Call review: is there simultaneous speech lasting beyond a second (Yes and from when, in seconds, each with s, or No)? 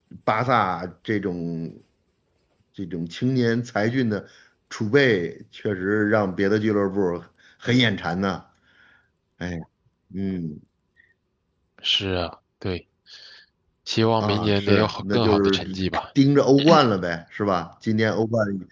Yes, from 14.2 s